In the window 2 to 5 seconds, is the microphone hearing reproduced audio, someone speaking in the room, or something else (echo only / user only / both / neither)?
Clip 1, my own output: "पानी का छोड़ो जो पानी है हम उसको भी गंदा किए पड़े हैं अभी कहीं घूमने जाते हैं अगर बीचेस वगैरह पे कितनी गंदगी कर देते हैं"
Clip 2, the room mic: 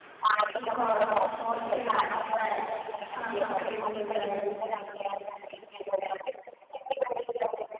both